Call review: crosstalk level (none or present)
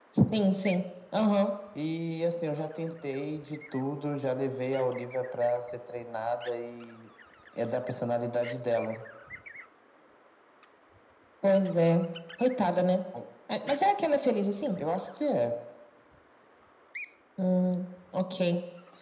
none